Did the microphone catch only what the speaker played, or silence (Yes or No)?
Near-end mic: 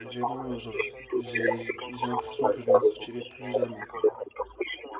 No